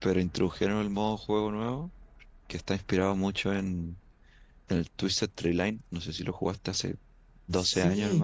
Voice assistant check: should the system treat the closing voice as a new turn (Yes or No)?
Yes